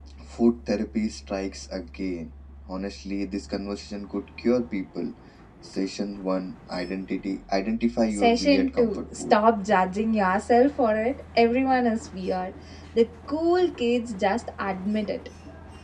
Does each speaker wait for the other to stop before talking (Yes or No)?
No